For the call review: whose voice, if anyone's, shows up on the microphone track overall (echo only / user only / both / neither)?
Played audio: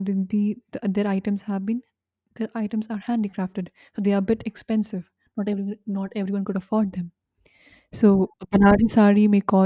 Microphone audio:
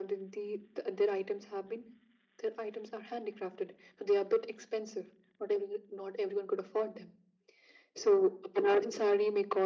echo only